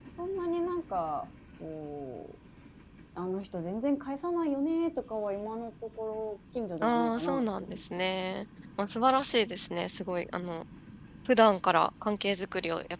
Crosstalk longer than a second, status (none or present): present